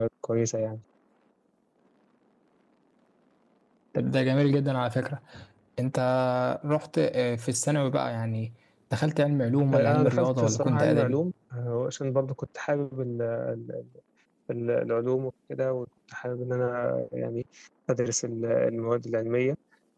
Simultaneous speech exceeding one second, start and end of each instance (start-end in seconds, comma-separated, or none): 9.7-11.2